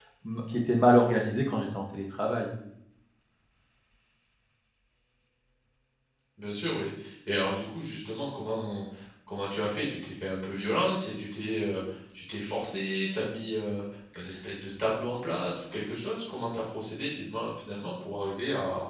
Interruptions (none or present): none